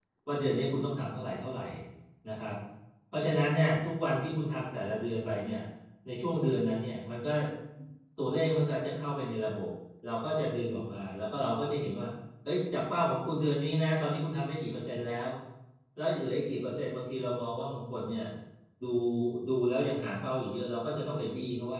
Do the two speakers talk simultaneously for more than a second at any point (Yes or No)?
No